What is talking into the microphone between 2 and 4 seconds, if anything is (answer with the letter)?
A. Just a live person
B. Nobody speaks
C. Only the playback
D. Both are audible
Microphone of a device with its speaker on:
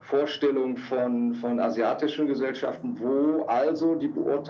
C